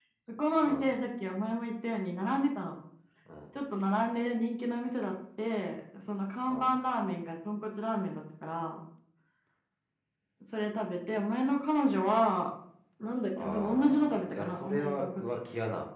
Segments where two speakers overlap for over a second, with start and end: 13.4-15.2

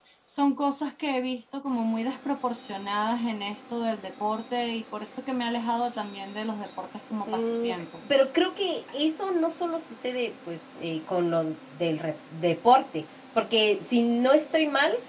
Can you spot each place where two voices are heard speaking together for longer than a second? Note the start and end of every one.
none

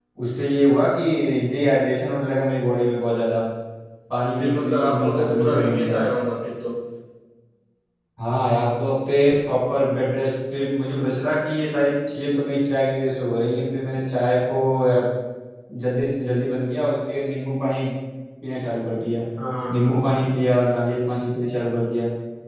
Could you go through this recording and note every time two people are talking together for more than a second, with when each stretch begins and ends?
4.4-6.0

